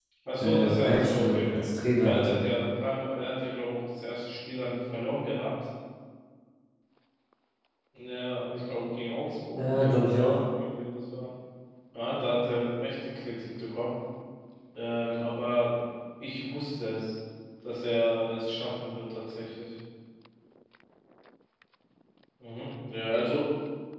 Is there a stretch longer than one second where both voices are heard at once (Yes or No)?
Yes